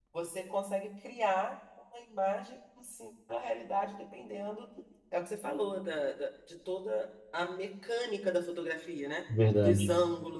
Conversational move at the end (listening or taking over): listening